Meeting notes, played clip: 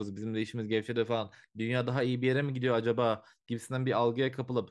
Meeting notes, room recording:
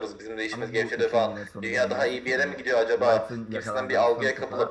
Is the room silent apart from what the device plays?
No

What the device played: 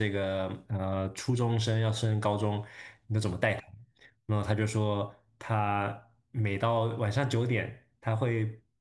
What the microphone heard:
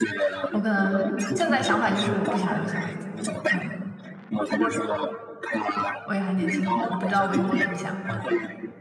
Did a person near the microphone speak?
Yes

